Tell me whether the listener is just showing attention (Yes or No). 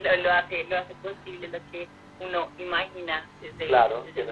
No